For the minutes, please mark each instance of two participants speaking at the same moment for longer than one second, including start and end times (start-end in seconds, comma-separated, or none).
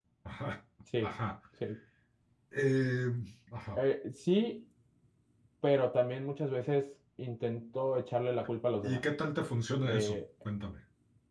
none